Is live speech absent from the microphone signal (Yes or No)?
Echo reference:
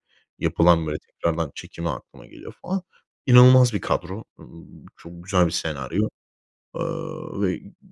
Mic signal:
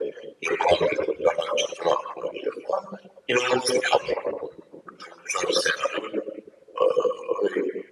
Yes